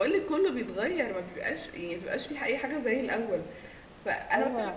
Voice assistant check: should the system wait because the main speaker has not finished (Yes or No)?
Yes